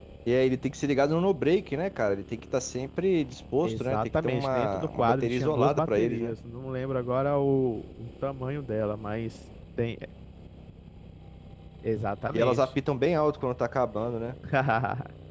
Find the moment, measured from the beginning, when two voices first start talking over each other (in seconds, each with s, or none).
3.6 s